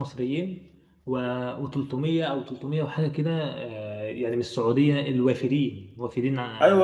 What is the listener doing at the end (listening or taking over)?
taking over